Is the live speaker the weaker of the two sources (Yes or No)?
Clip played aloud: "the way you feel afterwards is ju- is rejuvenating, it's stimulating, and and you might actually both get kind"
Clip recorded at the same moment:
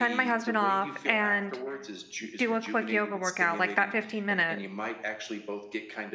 No